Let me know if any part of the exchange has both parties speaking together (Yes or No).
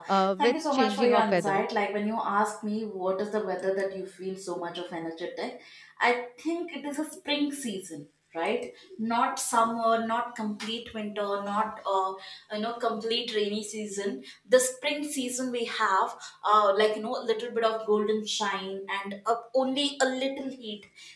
Yes